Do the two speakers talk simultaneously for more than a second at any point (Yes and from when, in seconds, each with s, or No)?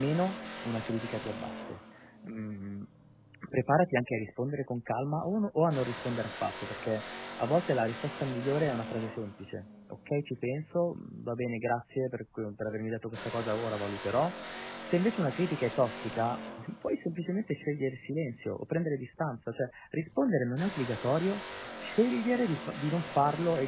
No